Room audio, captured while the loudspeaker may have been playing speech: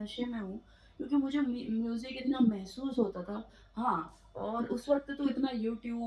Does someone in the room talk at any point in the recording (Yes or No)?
No